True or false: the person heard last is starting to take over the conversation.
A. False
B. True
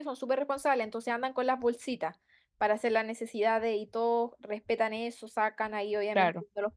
A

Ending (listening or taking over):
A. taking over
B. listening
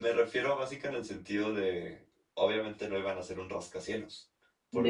B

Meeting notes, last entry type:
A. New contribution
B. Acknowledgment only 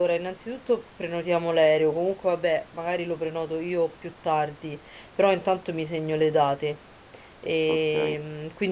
B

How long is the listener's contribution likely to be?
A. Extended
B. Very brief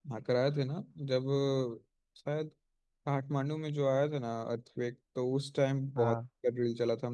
B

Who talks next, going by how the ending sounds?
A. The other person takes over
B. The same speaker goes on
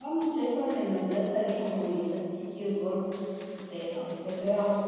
B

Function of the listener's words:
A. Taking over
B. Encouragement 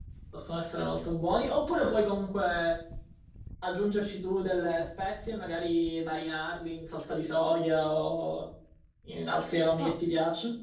B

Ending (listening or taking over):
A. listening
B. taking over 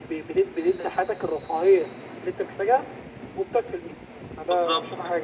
B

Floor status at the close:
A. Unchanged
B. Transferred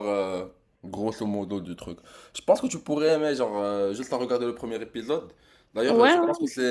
A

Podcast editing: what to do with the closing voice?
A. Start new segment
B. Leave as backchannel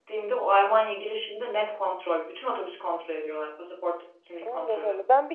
A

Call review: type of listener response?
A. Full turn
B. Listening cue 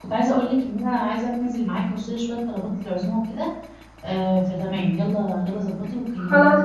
A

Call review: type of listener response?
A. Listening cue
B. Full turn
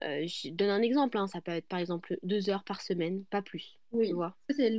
B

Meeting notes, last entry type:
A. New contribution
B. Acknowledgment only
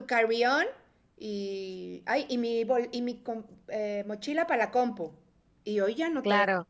A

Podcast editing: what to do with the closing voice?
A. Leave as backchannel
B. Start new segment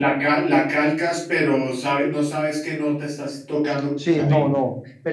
B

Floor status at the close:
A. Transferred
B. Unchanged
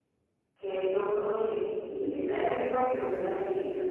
B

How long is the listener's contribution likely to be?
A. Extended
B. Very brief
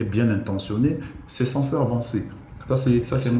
A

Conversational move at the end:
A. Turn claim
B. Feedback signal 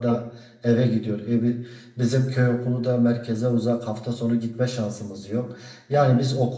B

